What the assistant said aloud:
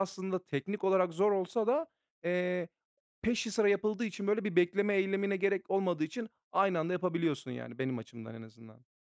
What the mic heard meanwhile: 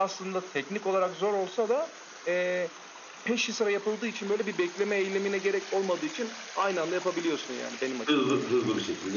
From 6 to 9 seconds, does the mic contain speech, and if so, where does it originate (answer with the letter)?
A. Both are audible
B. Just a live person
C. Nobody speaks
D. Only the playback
A